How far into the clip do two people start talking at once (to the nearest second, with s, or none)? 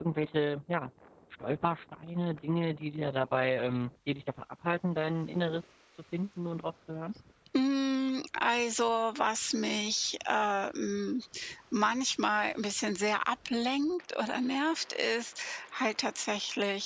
none